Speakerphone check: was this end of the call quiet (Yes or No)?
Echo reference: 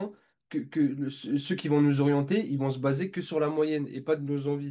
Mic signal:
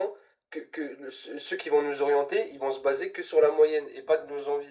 Yes